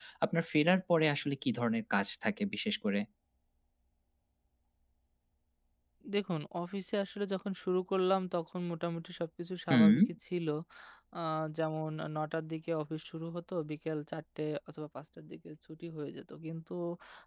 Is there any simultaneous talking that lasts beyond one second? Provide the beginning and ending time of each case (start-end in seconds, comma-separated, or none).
none